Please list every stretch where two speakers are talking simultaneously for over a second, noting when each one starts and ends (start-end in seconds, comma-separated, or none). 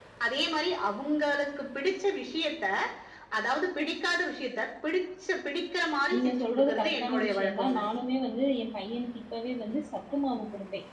6.1-7.8